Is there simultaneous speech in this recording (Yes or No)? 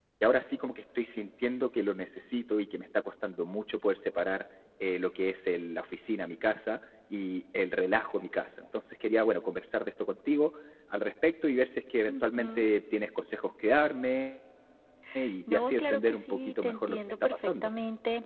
Yes